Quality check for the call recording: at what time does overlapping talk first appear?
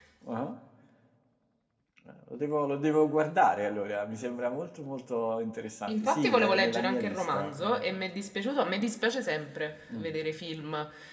5.9 s

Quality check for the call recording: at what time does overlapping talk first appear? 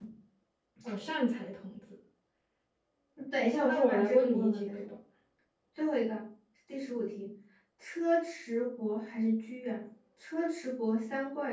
3.6 s

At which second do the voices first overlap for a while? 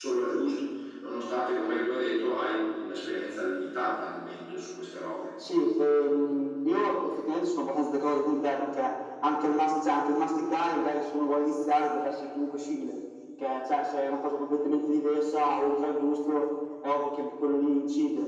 none

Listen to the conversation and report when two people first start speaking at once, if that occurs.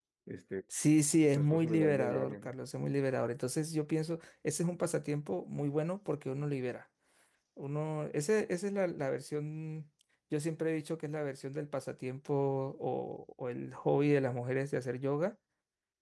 1.3 s

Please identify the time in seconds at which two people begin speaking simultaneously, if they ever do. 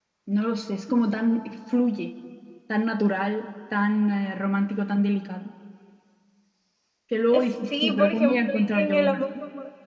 7.3 s

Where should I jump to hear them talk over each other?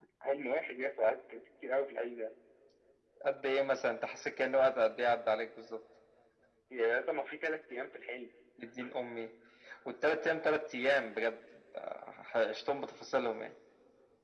none

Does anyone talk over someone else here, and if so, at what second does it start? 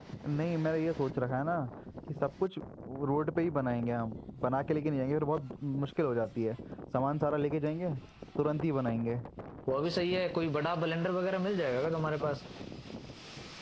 none

